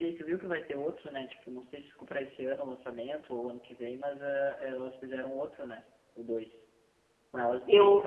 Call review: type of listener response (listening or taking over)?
listening